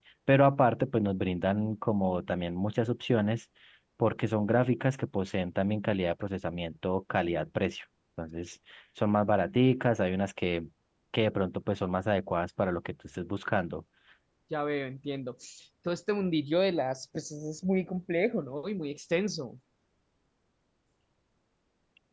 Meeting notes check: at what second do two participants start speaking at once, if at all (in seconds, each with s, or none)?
none